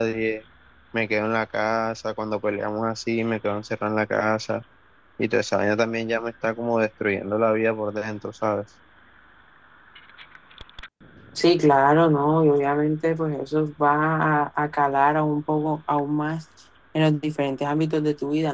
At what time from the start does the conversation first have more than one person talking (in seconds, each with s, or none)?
none